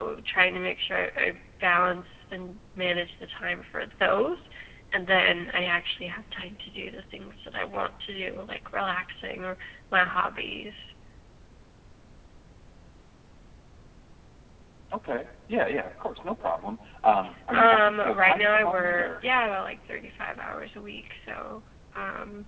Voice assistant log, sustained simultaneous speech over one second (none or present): present